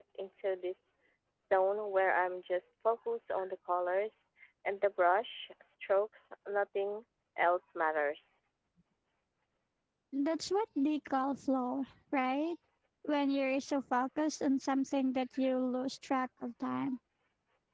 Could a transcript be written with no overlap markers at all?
Yes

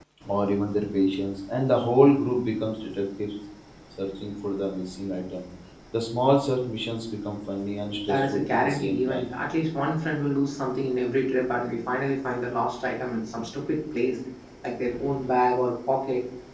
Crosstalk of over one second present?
Yes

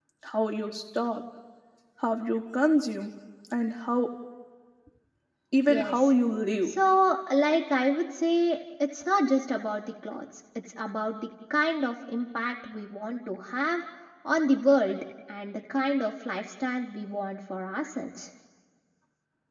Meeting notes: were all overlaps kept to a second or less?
Yes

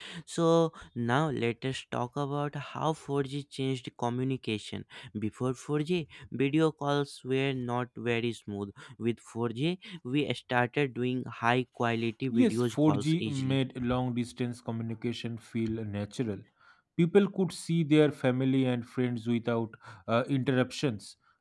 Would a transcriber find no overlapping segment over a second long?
No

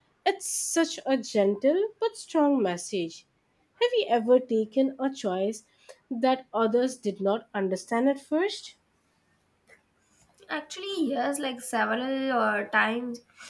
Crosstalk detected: No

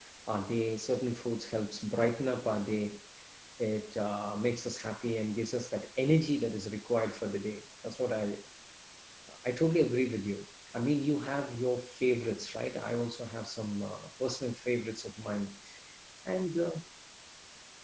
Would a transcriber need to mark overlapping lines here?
No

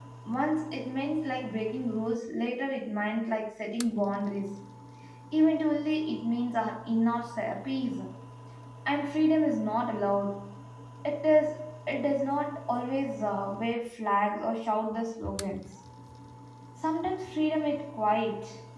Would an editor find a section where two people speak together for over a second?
No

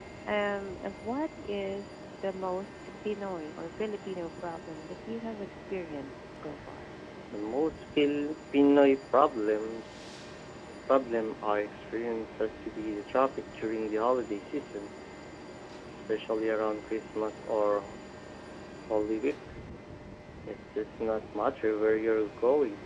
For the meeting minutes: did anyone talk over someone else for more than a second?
No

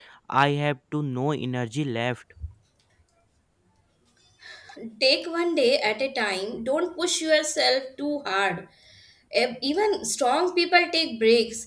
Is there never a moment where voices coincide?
Yes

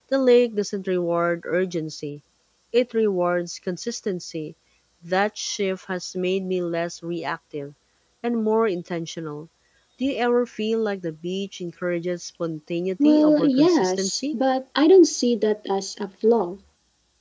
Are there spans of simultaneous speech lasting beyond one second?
Yes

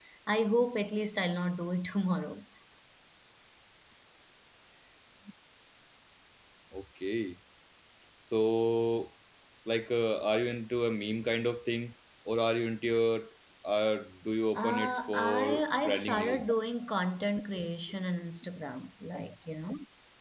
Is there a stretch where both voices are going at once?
Yes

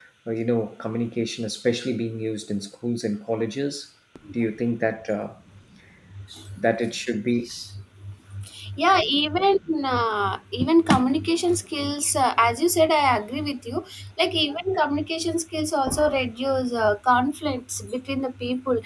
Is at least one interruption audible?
No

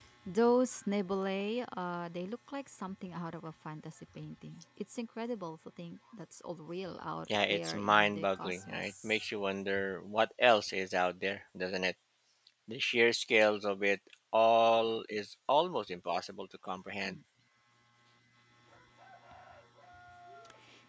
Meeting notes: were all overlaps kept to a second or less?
No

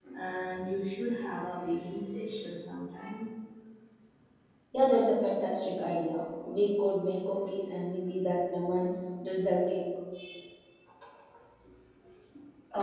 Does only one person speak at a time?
Yes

